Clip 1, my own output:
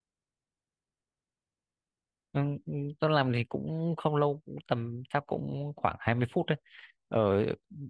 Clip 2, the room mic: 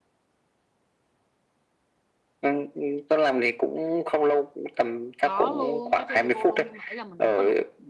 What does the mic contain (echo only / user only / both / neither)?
both